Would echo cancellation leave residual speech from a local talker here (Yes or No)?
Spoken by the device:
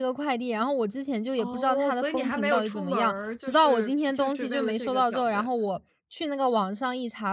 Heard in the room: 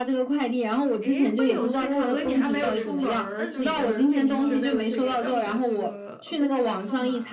Yes